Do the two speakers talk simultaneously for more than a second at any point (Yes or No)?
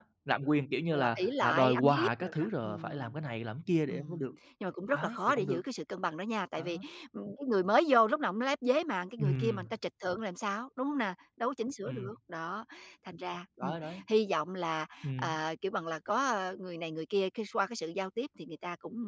Yes